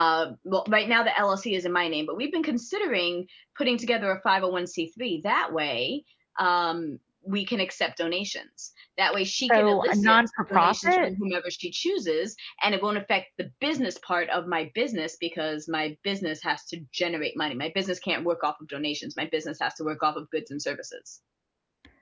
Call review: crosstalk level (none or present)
present